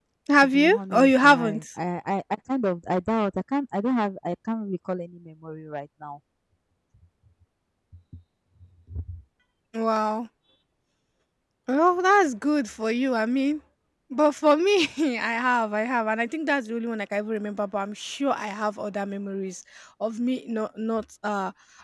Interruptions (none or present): present